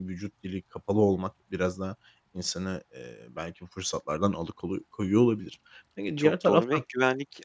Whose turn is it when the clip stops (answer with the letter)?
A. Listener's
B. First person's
A